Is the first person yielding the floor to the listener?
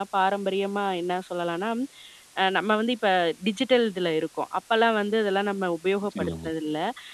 No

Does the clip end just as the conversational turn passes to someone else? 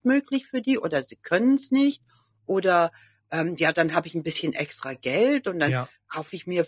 No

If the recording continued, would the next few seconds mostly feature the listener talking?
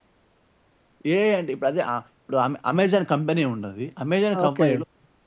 No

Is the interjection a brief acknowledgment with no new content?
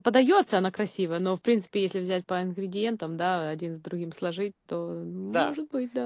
No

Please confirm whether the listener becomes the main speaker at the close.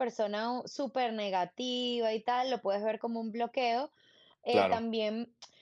No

